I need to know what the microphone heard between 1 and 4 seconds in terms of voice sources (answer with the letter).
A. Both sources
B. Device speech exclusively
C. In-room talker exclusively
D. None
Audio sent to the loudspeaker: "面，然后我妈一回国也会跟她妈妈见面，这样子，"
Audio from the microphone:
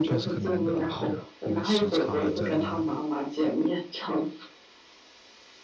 A